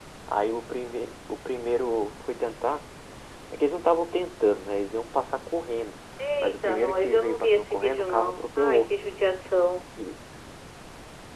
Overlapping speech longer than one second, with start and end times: 6.4-8.9

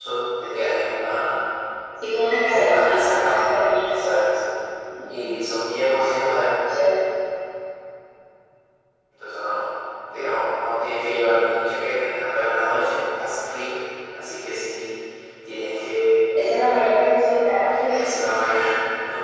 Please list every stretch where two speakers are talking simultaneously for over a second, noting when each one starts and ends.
2.5-4.0

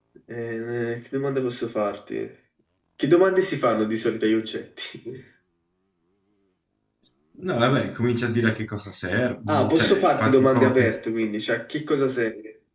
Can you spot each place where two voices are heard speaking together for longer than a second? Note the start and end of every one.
9.5-11.0

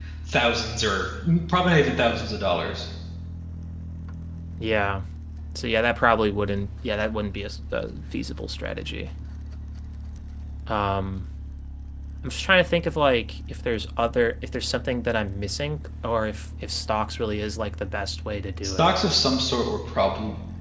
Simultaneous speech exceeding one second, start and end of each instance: none

